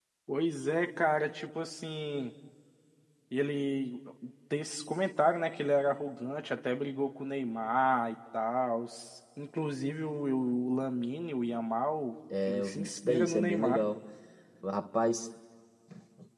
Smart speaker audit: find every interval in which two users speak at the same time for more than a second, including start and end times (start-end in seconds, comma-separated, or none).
12.4-13.8